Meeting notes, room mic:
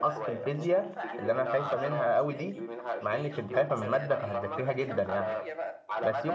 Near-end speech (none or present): present